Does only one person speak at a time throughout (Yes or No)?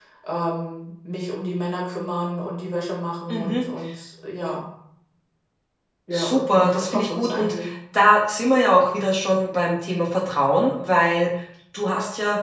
No